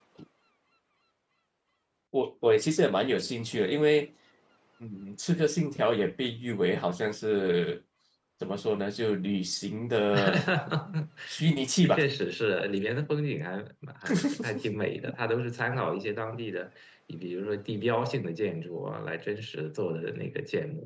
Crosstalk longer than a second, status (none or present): none